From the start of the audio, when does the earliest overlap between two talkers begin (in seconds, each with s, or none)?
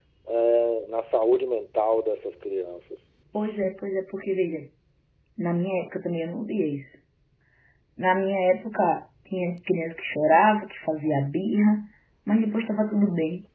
none